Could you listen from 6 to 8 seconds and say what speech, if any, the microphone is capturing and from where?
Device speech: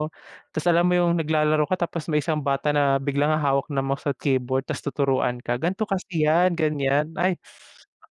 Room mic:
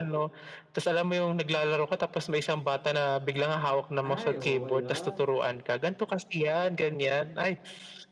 echo only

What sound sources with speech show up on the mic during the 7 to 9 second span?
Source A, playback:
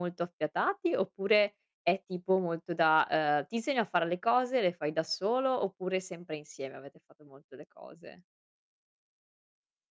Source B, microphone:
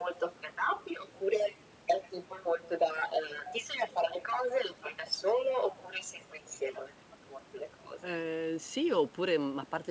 both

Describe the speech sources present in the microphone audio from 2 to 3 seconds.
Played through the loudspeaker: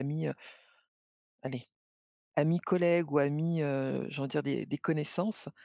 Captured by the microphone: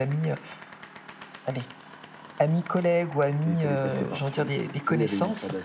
echo only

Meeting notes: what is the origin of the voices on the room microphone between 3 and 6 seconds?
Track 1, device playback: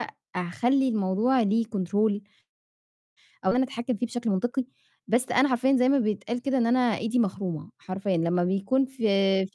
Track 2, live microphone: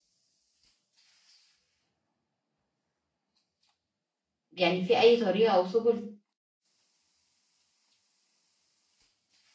user only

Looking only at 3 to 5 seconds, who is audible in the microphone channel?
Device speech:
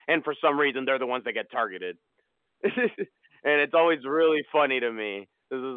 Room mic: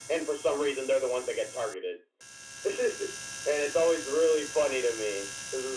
echo only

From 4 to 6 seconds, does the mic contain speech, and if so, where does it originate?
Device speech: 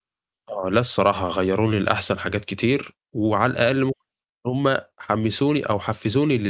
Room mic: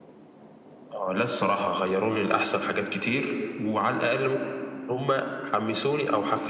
echo only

